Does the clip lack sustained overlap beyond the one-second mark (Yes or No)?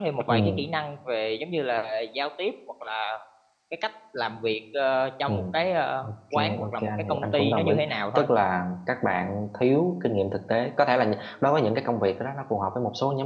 No